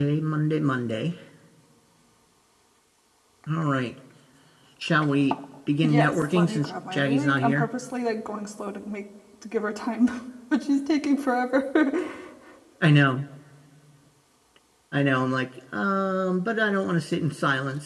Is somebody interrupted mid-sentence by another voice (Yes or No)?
Yes